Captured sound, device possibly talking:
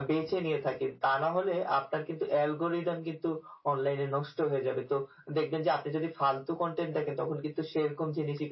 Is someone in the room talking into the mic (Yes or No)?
No